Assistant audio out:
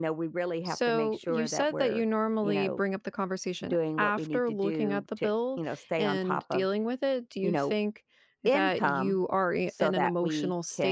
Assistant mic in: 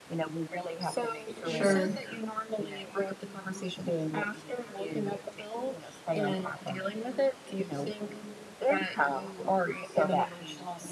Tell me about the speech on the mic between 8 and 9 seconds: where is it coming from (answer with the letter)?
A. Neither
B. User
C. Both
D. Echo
D